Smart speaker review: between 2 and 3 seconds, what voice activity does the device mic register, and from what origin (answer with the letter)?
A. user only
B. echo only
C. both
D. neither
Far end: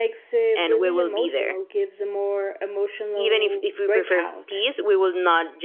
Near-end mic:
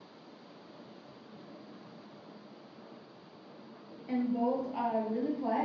D